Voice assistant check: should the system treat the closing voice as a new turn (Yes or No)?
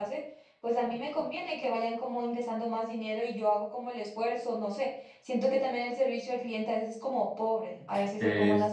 Yes